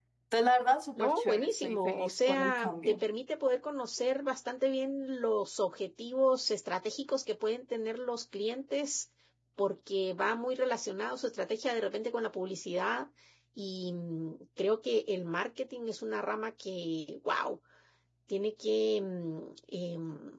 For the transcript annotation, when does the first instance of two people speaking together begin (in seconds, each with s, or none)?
1.0 s